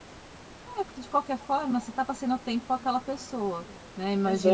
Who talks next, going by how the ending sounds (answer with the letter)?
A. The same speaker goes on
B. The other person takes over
A